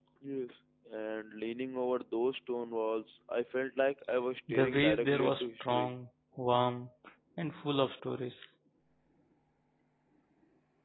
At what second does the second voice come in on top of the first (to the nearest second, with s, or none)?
4 s